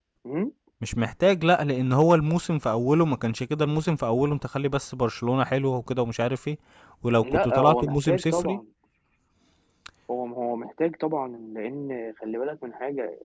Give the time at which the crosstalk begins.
7.2 s

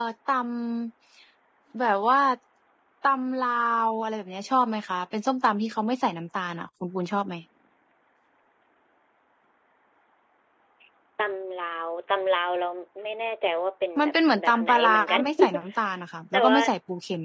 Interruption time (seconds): 14.0 s

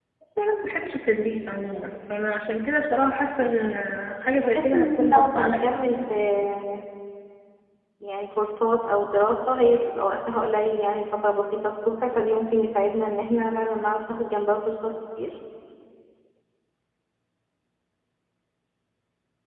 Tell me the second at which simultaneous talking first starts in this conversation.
4.2 s

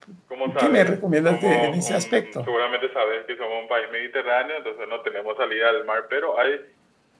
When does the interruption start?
0.6 s

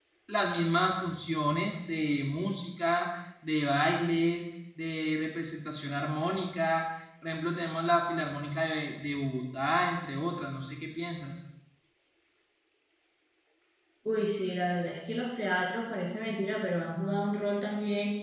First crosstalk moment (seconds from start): none

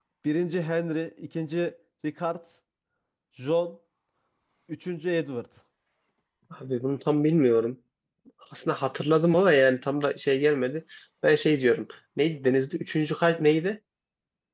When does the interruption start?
none

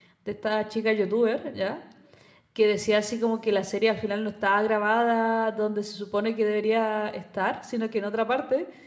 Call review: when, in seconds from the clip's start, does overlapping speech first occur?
none

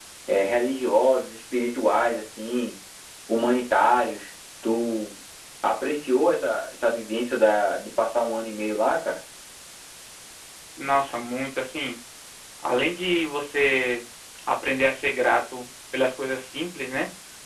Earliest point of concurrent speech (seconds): none

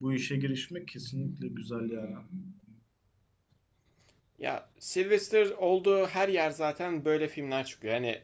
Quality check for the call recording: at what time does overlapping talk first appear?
none

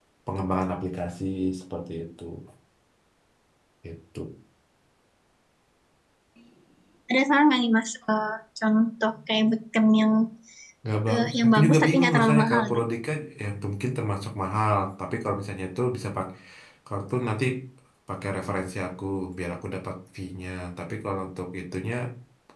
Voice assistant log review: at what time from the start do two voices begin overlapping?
11.1 s

